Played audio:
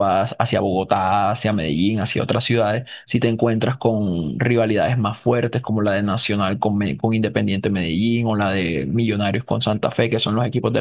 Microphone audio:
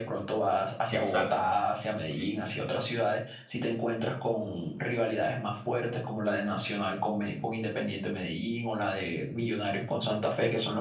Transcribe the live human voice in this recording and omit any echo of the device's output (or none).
Exacto, sí.